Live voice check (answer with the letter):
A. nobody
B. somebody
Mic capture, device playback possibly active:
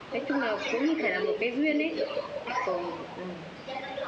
B